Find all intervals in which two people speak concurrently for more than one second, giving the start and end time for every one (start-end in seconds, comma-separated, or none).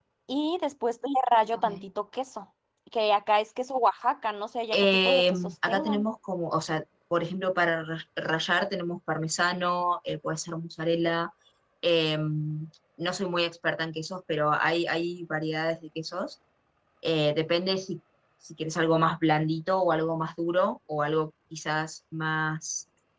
4.7-6.0